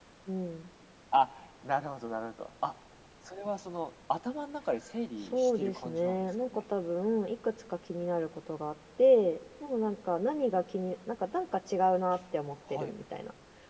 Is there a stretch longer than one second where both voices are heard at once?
Yes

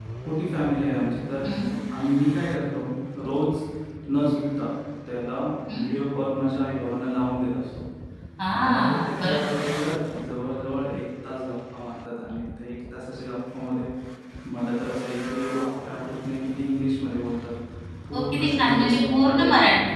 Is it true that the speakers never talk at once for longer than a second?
No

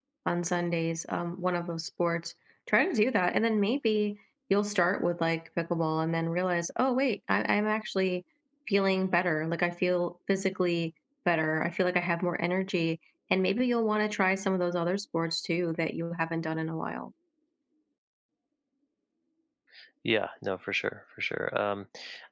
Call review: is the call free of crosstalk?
Yes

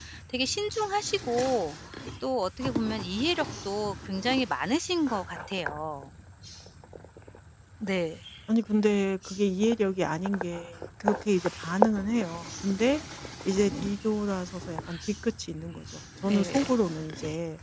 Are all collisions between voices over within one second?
Yes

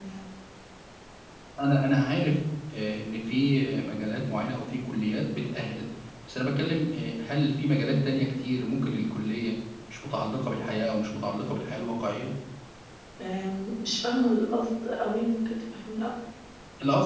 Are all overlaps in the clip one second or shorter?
Yes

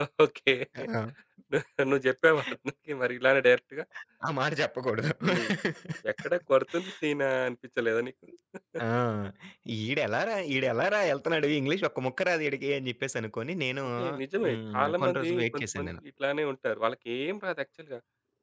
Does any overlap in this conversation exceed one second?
Yes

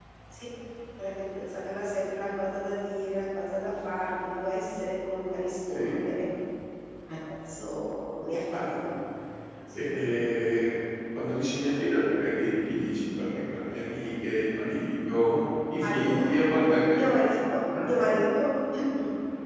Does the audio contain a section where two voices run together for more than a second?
No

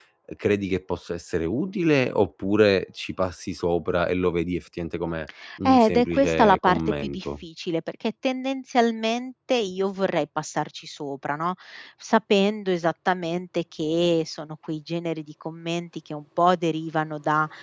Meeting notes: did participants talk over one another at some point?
Yes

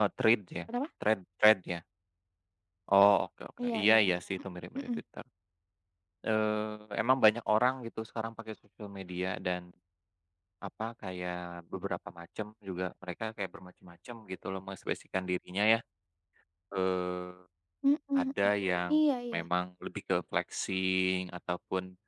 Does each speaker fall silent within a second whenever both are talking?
Yes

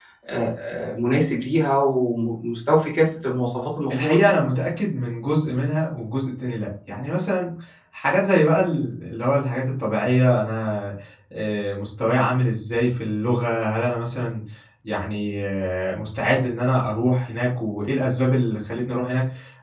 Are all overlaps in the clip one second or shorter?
Yes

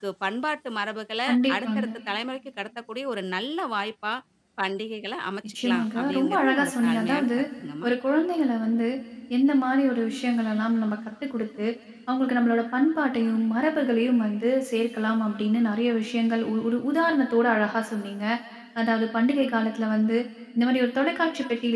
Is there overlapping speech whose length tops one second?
Yes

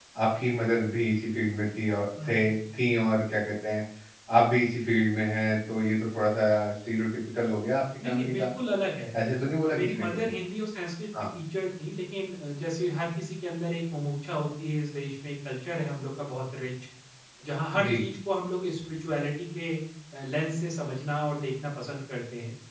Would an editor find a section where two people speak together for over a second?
No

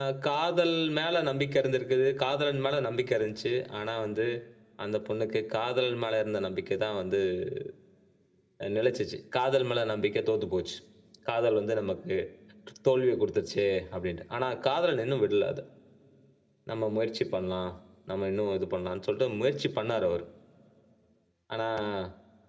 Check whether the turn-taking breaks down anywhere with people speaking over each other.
No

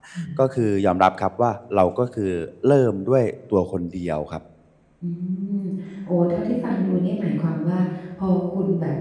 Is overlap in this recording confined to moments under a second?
Yes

